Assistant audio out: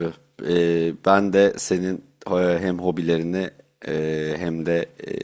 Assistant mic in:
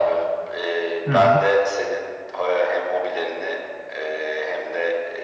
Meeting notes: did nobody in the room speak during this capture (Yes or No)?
No